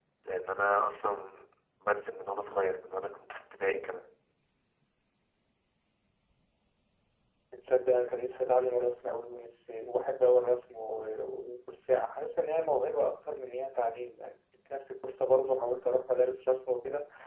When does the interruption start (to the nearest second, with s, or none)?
none